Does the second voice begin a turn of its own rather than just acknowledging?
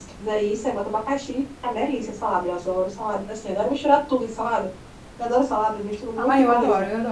Yes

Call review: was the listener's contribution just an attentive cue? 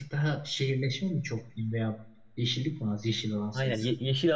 No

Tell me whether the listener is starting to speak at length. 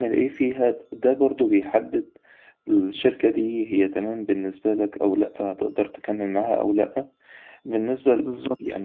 No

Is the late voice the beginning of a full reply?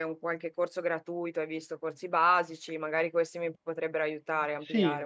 Yes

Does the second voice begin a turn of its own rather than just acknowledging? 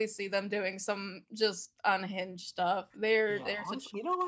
Yes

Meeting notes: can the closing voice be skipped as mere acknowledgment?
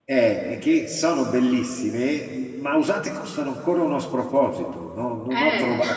Yes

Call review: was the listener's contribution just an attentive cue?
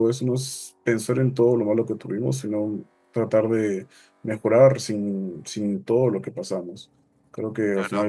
Yes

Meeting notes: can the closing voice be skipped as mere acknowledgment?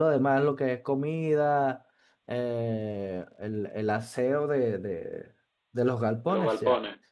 Yes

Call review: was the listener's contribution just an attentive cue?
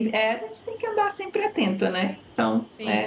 No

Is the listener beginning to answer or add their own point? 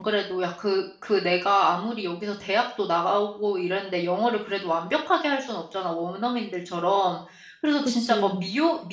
No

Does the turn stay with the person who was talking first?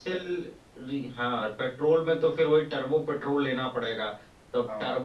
Yes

